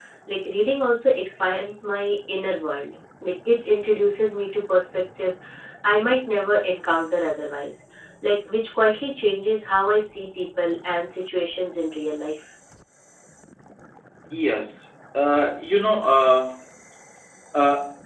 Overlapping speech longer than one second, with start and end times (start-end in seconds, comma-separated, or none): none